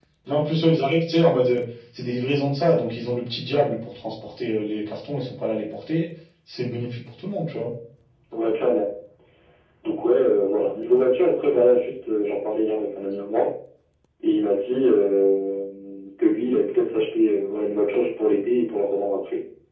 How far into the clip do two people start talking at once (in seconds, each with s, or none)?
none